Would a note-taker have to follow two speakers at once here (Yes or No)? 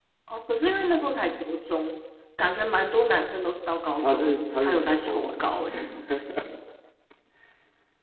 Yes